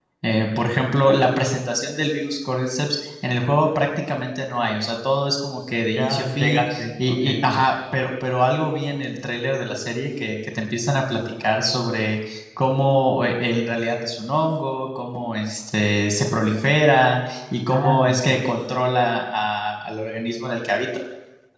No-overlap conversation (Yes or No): No